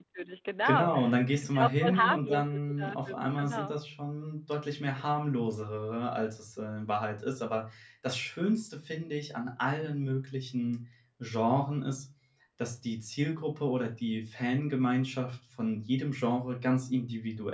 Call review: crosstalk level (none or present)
present